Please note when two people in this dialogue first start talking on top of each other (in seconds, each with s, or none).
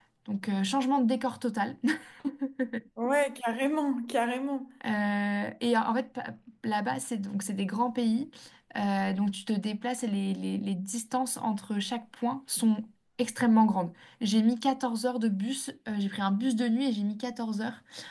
none